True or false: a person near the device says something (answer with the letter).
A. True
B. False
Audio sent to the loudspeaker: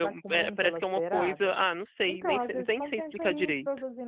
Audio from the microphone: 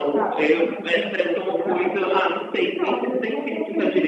B